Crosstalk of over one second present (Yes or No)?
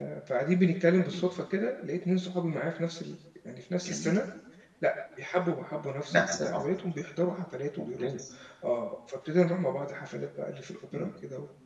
No